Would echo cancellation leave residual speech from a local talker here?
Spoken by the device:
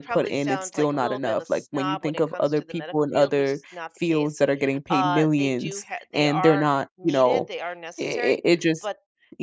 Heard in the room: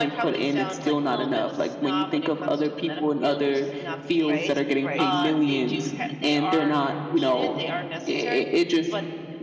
Yes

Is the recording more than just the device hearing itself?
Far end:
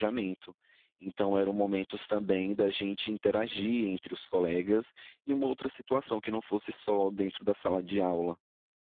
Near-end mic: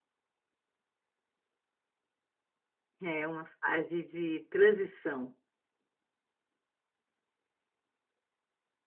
Yes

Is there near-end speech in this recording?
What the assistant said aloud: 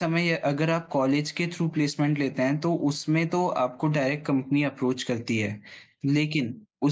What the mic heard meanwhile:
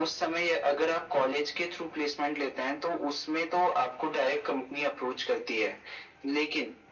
No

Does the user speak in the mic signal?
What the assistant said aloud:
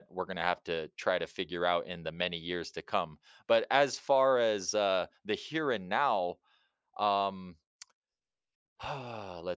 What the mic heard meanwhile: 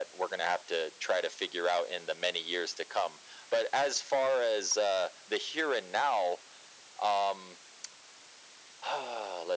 No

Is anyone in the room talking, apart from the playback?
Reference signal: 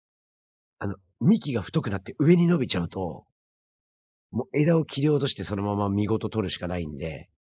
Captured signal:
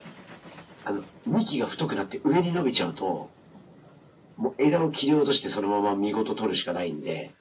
No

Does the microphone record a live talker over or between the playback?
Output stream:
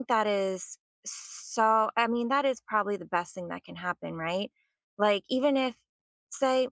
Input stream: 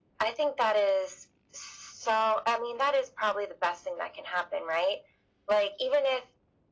No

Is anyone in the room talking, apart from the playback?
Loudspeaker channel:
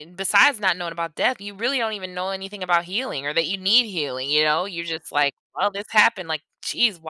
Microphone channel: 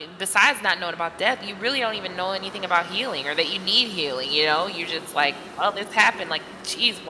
No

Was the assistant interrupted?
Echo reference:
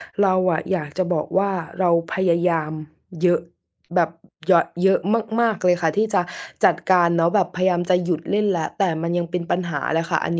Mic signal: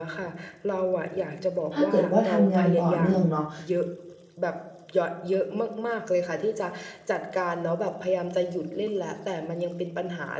Yes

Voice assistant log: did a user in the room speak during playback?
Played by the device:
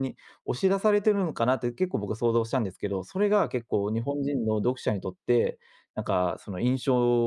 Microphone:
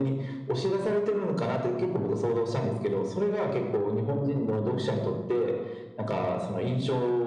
No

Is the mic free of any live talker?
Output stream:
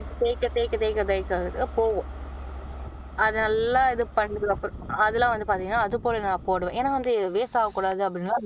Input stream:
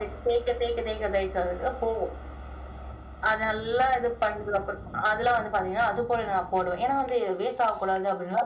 Yes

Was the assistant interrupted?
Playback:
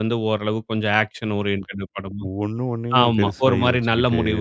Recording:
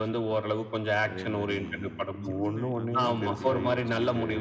Yes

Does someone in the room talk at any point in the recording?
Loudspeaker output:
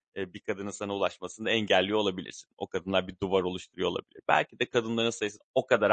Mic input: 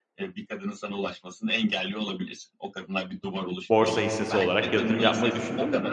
Yes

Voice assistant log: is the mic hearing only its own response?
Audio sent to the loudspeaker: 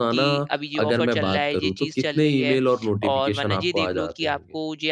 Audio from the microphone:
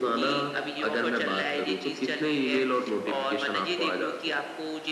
Yes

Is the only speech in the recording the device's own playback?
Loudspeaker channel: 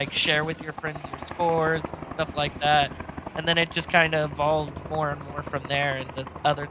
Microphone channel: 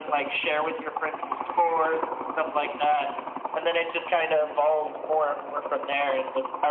Yes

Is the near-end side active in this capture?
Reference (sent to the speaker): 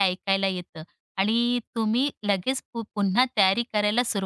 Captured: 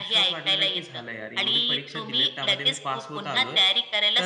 Yes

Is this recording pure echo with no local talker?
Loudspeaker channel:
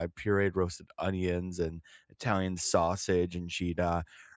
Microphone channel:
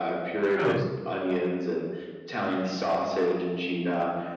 No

